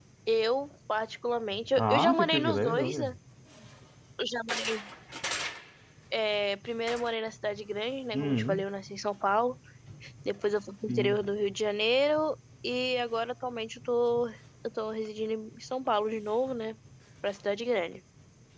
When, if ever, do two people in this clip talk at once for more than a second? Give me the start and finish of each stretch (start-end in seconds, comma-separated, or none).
1.8-3.1